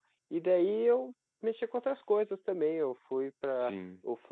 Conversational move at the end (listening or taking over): listening